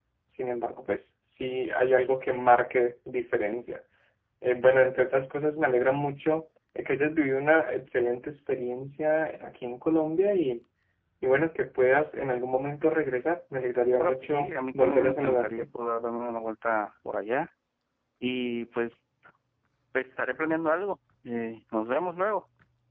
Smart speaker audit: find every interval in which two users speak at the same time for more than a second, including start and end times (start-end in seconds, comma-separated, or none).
14.0-15.7